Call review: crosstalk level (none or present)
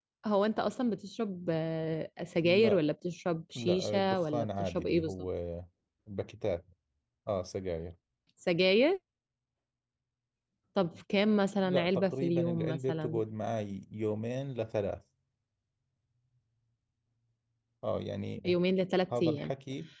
present